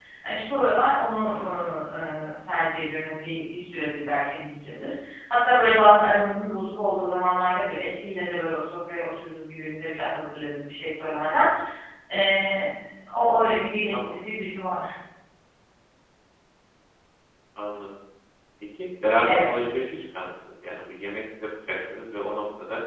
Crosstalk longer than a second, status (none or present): none